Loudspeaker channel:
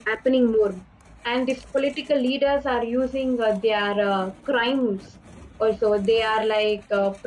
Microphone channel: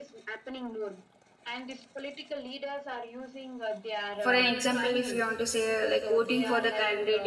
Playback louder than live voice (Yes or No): No